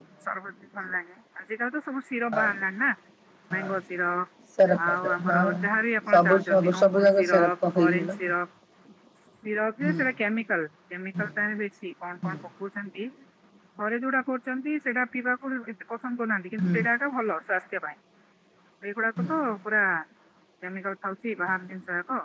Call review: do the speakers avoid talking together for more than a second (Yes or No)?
No